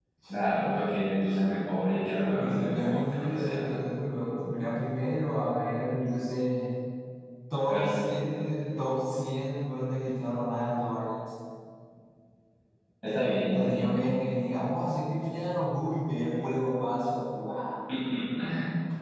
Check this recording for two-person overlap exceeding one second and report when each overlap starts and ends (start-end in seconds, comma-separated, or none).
2.4-3.6